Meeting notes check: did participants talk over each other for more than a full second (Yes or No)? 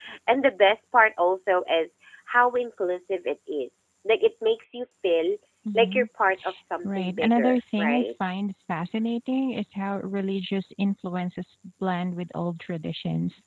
Yes